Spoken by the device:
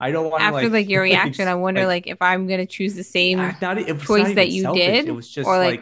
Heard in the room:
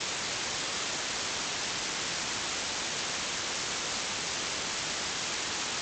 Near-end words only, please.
none

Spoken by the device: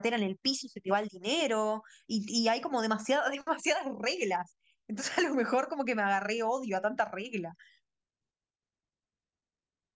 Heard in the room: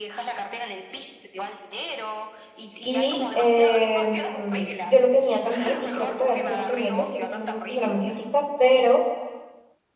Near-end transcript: Y em, yo lo tenía también, y creo que todavía lo sigo teniendo, sigo siendo una persona muy crítica, pero

